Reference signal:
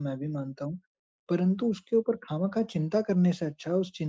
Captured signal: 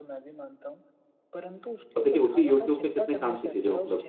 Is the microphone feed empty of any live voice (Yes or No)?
No